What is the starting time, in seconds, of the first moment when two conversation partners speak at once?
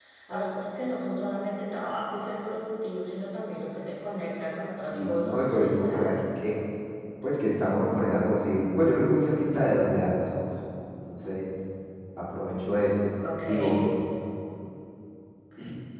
5 s

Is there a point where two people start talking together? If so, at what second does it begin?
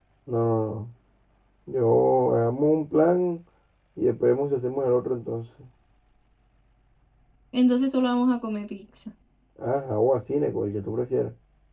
none

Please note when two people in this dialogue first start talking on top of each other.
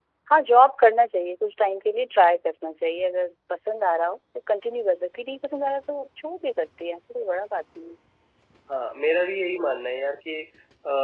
none

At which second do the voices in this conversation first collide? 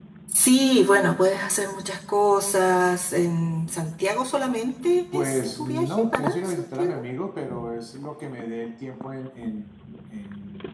5 s

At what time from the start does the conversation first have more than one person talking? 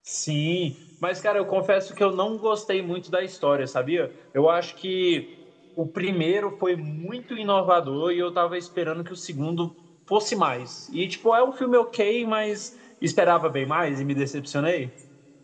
none

